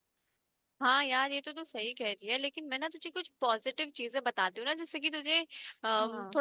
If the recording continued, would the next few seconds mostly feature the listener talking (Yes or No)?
No